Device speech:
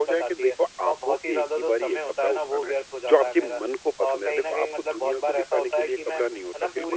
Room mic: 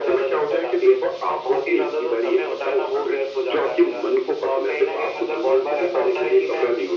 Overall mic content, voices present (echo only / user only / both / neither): echo only